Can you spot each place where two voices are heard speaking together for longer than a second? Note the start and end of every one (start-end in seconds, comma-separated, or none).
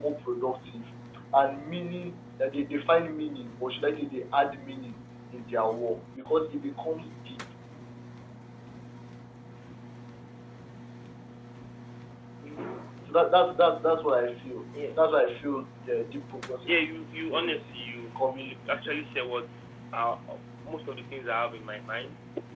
17.3-18.9